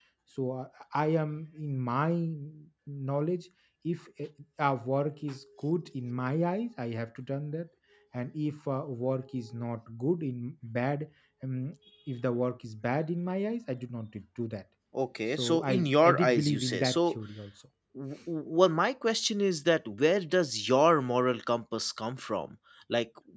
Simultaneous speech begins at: 15.4 s

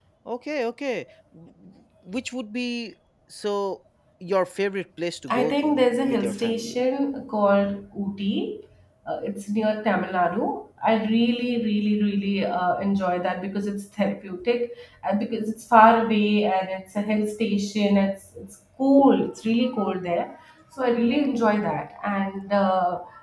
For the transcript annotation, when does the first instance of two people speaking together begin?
5.3 s

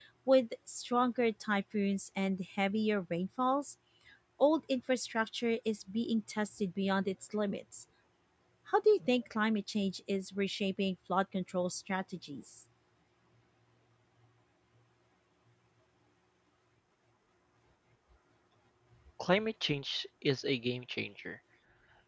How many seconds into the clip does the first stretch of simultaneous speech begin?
none

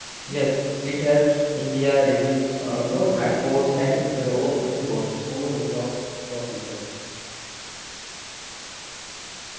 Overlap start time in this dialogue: 2.6 s

